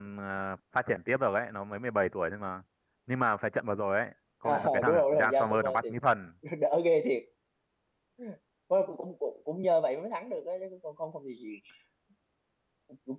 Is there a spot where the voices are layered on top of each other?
Yes, from 4.4 s

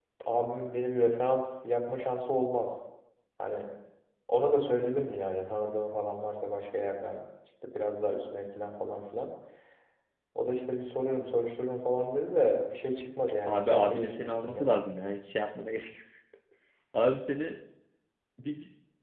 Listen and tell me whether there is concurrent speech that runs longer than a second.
Yes, from 13.4 s

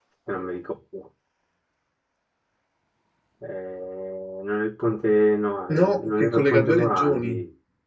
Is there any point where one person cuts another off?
Yes, from 5.7 s

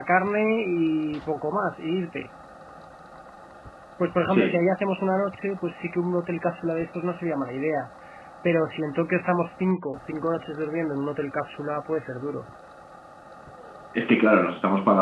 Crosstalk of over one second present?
No

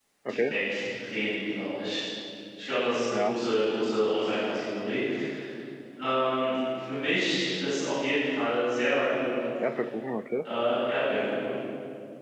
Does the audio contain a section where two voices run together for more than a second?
No

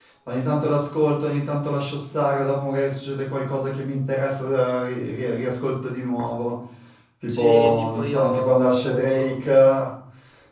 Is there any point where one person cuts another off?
Yes, from 7.3 s

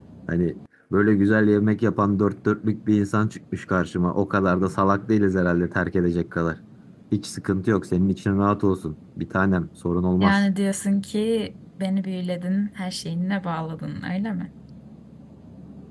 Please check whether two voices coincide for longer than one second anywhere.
No

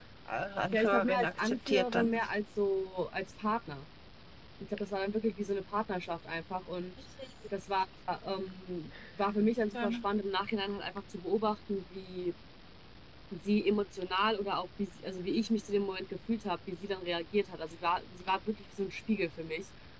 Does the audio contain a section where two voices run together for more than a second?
Yes, from 0.7 s

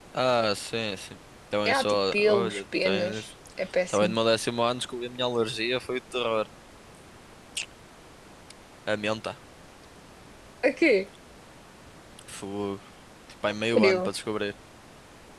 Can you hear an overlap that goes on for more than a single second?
Yes, from 1.6 s

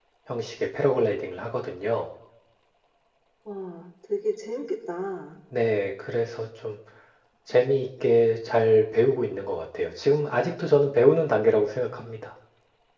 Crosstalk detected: No

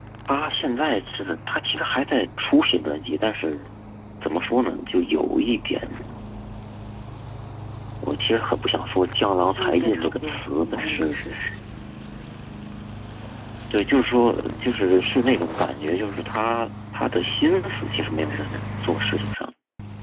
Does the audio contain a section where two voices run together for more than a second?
Yes, from 9.3 s

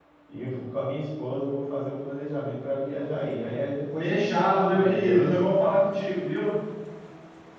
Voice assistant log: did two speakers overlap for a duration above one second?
Yes, from 4.0 s

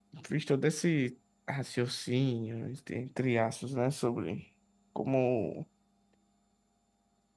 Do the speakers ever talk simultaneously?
No

